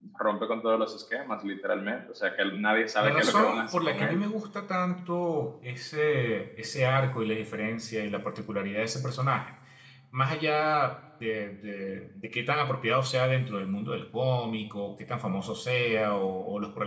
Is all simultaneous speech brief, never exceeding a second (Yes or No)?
No